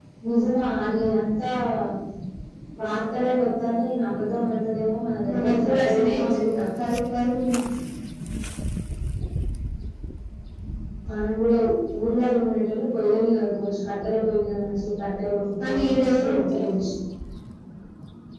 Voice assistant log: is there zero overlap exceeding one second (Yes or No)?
No